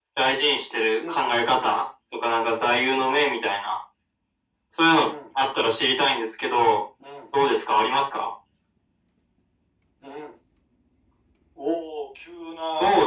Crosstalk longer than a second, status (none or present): none